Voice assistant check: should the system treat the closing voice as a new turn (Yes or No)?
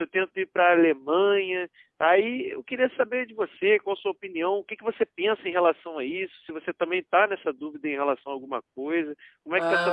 Yes